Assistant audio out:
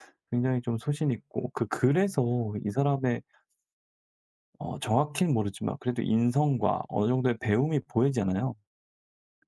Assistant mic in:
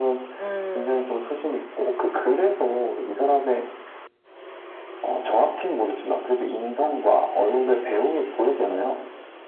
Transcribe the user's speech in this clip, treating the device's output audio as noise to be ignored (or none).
음.